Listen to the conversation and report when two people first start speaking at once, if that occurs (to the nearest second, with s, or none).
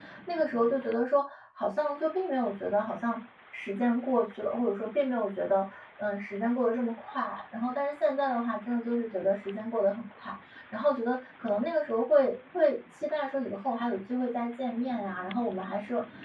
none